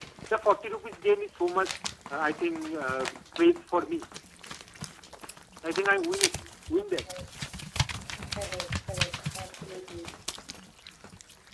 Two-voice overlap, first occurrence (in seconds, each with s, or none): none